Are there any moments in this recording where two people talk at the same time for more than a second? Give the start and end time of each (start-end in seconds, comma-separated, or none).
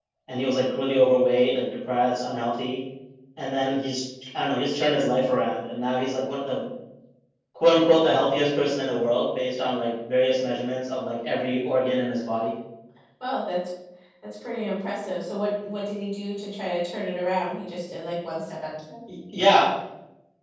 none